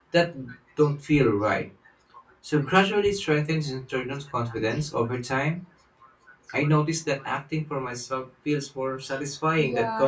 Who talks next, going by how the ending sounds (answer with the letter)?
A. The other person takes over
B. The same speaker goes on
A